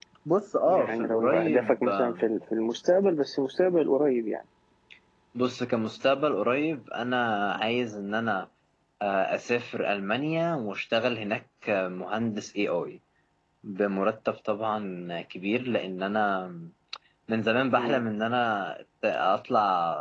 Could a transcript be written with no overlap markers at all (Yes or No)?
No